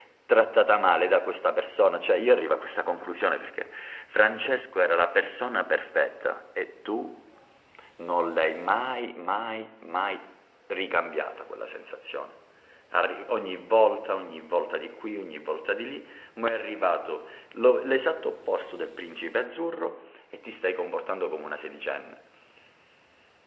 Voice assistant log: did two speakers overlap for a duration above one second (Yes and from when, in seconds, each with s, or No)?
No